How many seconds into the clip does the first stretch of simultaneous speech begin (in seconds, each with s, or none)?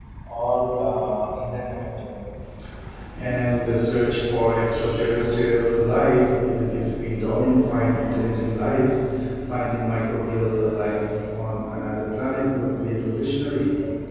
none